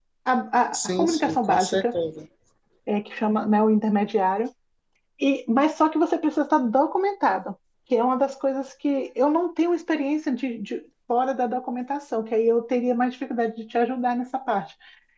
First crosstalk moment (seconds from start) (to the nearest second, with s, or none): 1 s